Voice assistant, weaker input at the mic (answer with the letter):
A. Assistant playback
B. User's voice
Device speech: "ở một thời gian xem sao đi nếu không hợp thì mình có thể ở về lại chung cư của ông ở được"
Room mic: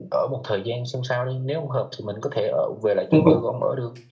A